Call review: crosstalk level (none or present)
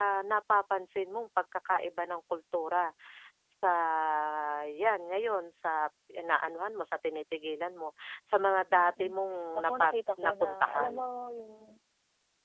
present